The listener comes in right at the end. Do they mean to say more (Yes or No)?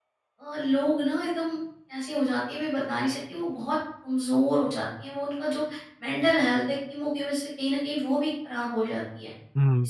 Yes